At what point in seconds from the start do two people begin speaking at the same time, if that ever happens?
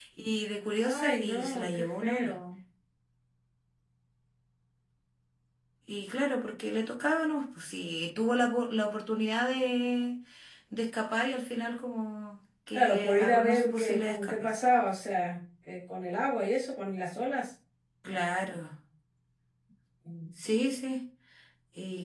0.8 s

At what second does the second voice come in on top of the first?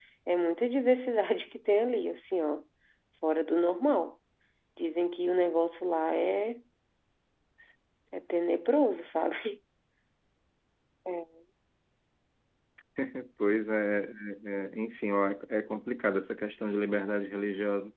none

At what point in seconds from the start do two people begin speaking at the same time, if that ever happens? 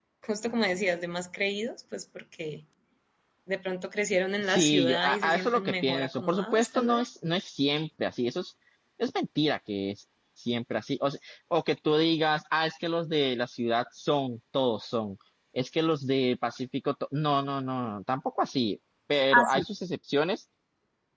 4.4 s

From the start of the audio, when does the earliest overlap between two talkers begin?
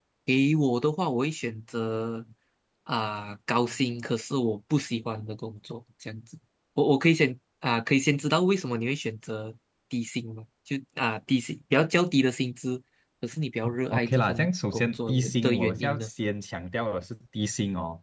13.9 s

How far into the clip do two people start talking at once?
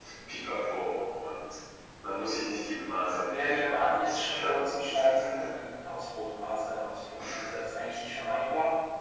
3.2 s

